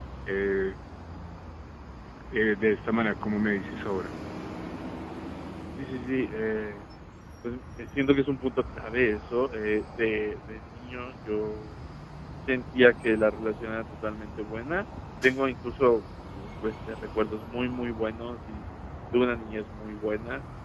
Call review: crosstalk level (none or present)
none